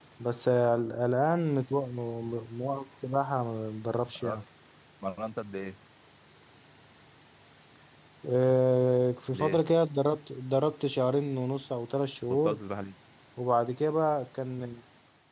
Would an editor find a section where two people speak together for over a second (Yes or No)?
No